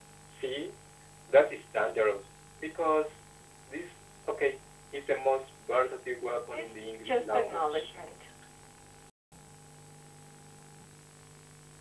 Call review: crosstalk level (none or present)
present